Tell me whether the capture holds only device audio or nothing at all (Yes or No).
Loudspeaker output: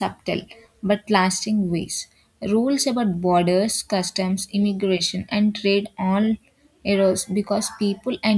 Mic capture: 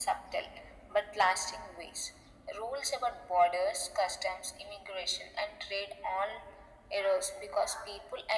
Yes